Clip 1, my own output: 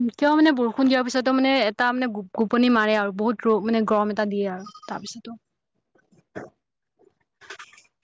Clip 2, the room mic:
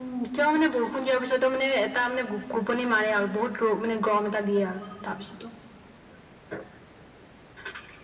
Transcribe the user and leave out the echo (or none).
none